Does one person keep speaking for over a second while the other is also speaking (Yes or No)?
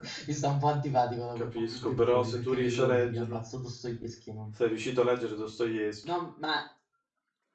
Yes